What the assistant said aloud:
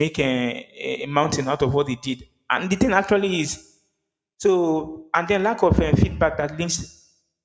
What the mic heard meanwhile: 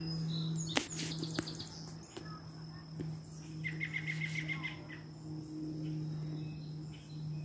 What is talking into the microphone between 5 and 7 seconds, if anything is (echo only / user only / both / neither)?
neither